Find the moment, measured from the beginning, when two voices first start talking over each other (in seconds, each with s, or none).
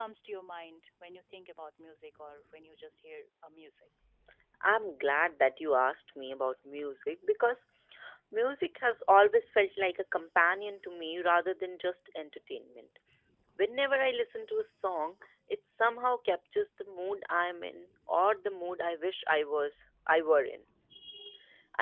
none